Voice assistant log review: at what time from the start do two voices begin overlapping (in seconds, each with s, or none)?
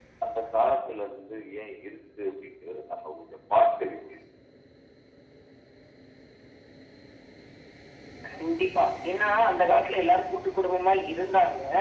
none